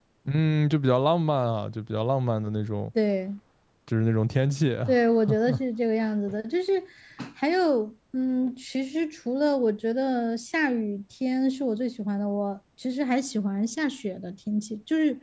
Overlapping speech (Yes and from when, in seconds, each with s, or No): No